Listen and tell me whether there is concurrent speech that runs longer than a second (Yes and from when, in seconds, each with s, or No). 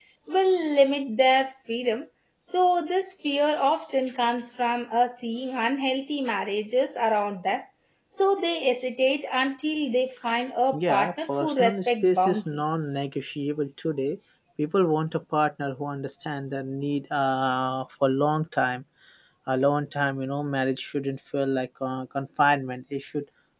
Yes, from 10.7 s